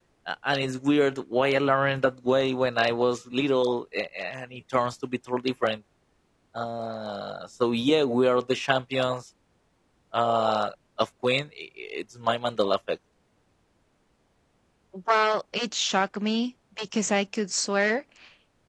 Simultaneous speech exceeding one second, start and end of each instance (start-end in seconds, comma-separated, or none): none